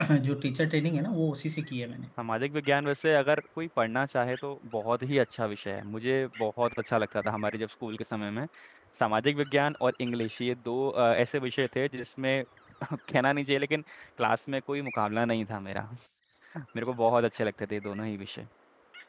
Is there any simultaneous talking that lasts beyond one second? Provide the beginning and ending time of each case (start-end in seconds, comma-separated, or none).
none